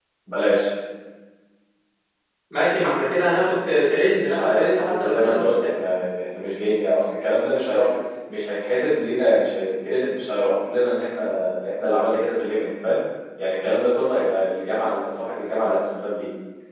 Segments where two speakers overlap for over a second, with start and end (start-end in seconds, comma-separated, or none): 4.2-5.5